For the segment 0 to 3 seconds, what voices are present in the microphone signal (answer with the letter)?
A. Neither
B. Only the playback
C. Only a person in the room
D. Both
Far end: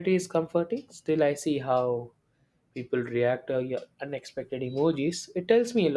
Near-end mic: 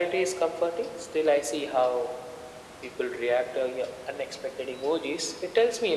B